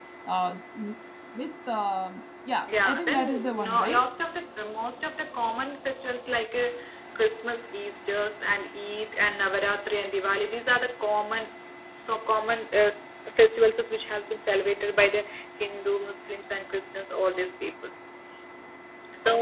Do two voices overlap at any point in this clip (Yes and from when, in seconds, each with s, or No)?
Yes, from 2.7 s